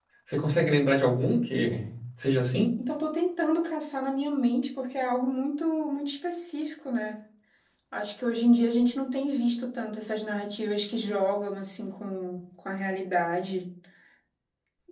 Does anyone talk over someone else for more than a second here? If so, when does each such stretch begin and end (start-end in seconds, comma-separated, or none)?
none